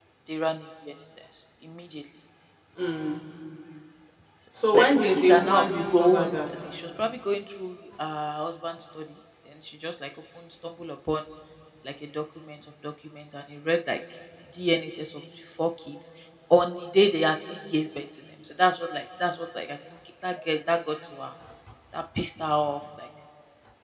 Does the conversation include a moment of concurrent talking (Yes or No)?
Yes